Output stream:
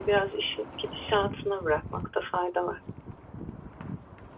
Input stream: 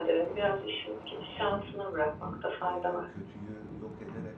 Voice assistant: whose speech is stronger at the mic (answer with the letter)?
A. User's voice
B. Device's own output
B